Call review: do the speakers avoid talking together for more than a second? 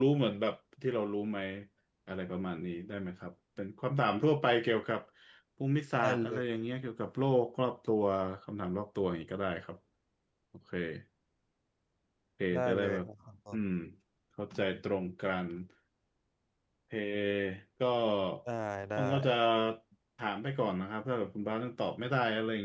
Yes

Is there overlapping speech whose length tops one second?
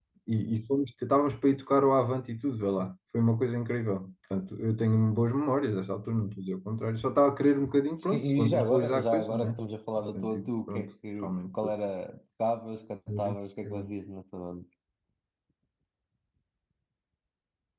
Yes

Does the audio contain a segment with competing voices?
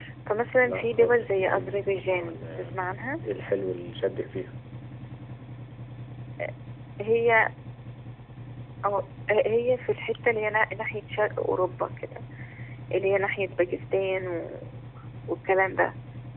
Yes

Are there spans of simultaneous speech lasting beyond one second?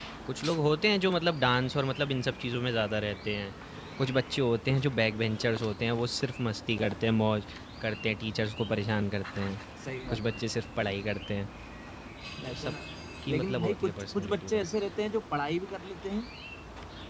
Yes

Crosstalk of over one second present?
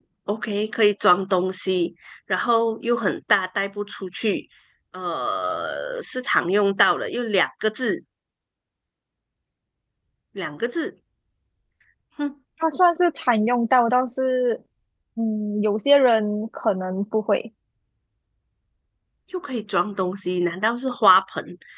No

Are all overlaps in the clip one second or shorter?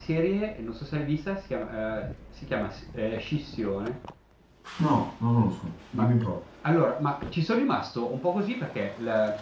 Yes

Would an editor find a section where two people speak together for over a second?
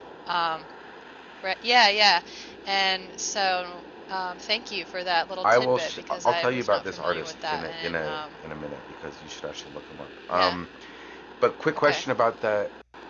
Yes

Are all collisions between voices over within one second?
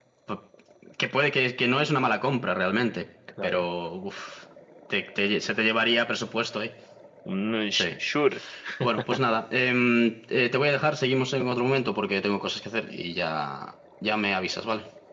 Yes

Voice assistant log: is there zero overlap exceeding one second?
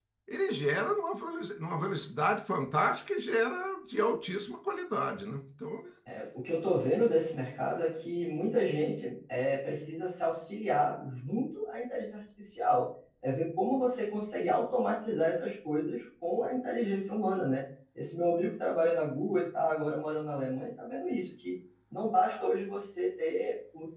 Yes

